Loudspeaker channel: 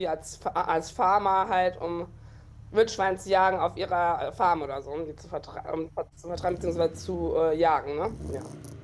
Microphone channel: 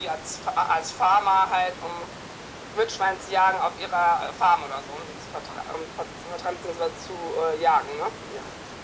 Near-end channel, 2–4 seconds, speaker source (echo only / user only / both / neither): echo only